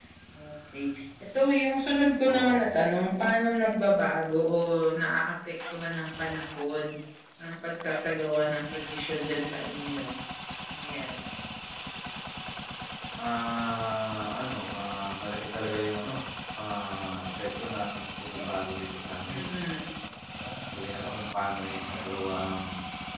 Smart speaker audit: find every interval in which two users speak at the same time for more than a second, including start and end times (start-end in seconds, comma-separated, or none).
none